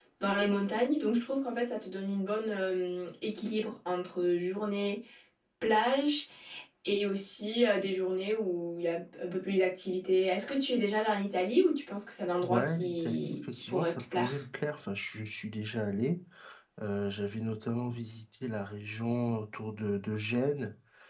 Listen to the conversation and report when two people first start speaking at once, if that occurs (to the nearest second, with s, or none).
12 s